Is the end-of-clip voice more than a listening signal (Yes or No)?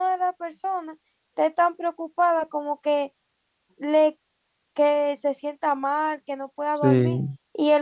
No